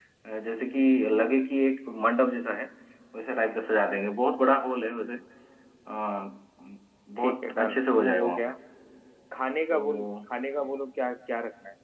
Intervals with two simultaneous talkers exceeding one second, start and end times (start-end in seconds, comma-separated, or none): 7.2-8.5